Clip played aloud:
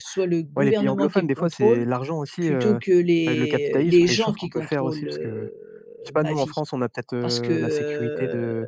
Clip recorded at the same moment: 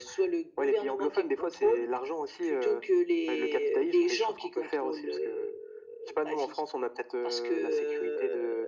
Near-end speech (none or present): none